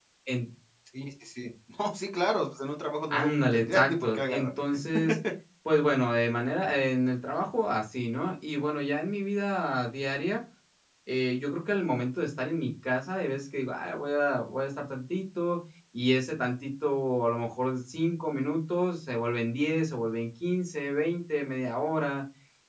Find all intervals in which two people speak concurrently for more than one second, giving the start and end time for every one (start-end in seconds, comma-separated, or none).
3.1-4.5